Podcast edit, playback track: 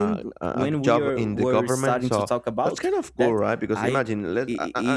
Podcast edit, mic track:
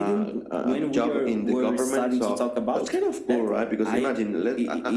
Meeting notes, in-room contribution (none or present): none